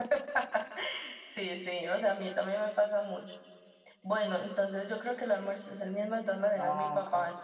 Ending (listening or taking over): listening